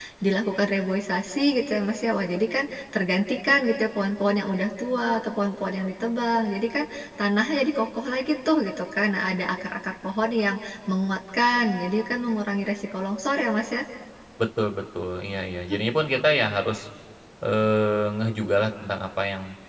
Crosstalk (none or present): none